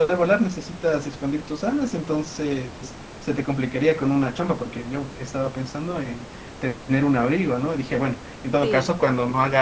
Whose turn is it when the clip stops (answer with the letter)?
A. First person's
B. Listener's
A